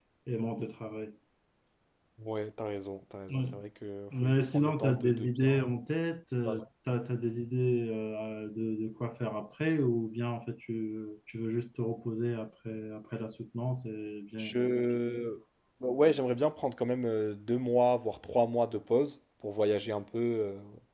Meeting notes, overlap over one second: present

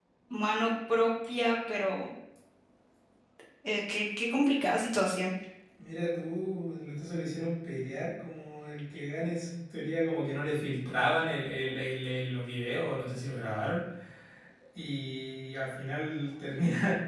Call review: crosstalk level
none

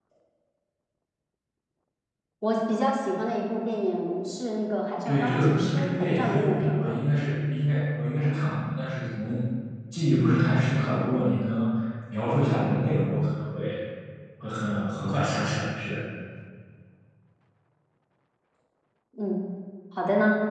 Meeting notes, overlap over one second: present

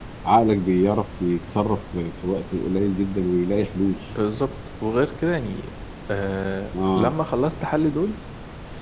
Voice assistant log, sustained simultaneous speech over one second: none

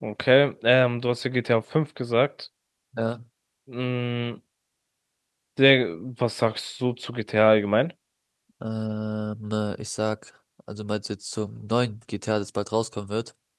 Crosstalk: none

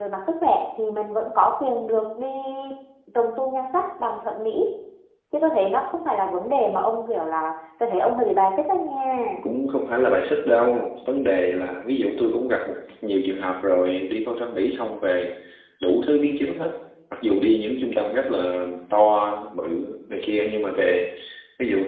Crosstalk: none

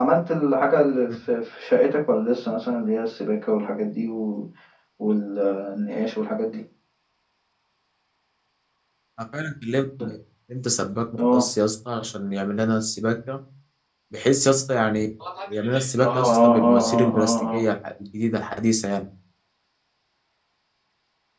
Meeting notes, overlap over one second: present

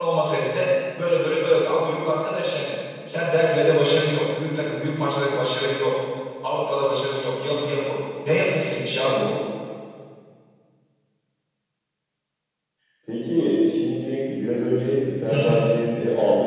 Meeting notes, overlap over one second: none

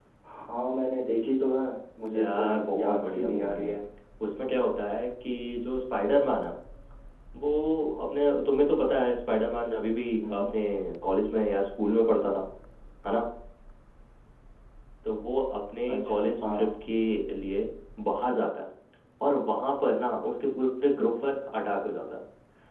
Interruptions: present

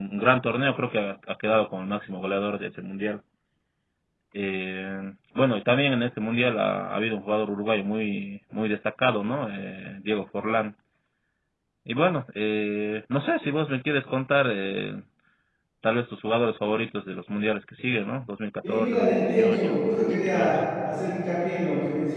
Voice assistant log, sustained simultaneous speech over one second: present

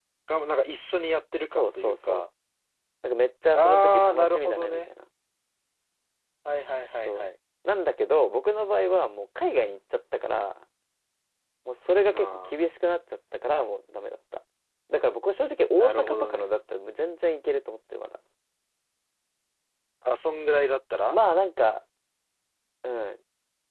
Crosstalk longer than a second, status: present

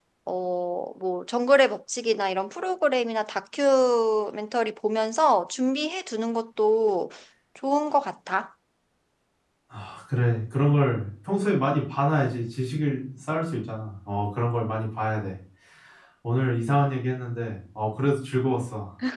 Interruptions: none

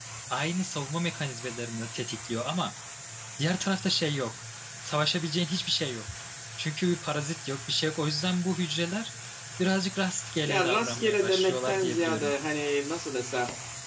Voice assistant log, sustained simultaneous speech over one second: present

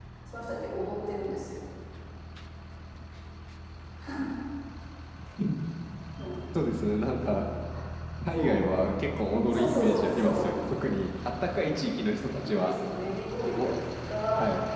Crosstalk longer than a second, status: present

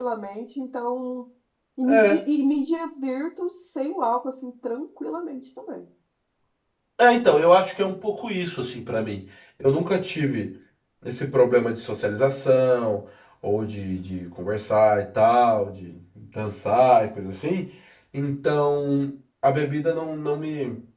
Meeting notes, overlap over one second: none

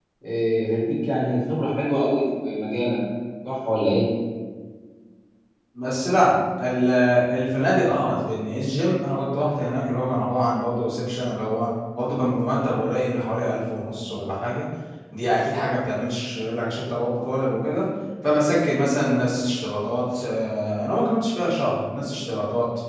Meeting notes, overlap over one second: none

